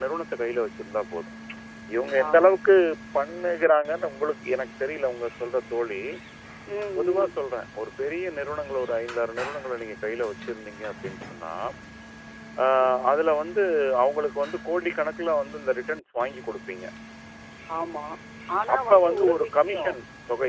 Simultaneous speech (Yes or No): Yes